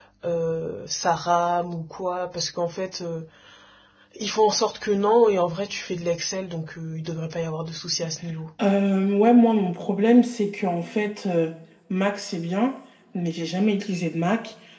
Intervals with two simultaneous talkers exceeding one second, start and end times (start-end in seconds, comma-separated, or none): none